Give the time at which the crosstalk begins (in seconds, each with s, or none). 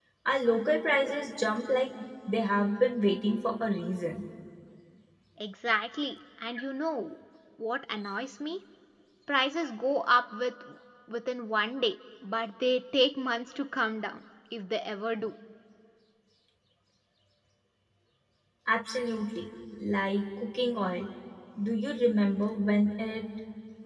none